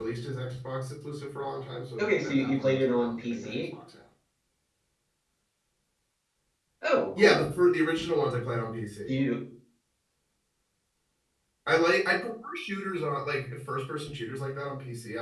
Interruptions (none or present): present